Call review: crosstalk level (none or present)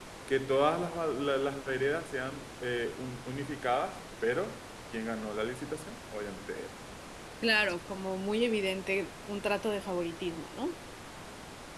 none